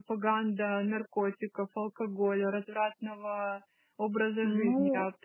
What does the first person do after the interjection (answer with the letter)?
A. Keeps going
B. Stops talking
B